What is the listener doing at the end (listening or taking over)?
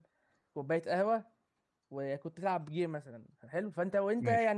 listening